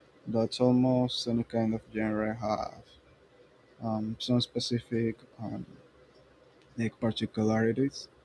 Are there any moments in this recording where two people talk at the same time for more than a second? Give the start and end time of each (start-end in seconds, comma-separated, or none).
none